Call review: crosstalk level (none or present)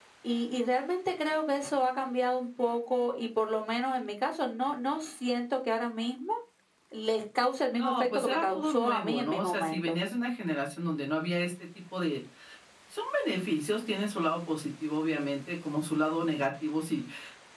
present